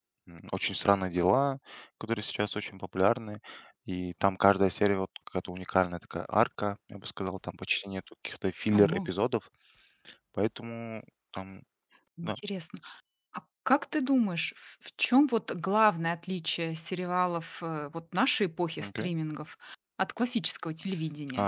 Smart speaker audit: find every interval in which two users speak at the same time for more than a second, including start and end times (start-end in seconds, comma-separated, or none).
none